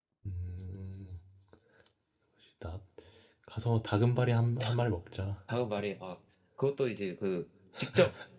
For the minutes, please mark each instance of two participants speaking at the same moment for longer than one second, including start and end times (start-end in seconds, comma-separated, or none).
none